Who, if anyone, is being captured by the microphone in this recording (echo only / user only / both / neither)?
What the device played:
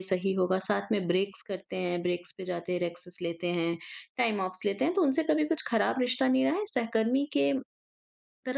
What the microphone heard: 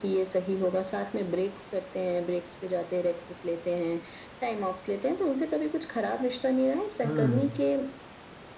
both